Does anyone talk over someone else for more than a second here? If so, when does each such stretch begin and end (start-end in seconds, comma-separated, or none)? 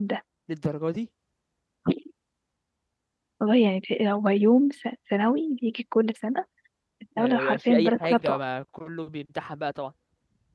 7.2-8.4